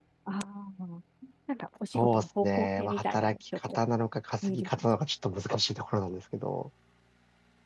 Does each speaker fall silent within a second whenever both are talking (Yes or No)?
No